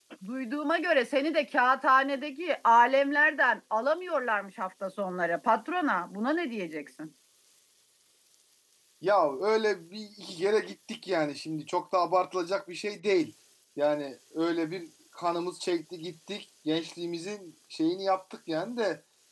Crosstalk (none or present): none